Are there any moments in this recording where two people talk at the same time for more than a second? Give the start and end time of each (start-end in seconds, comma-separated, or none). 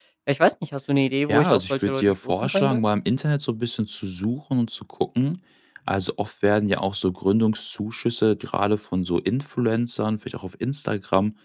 1.3-2.8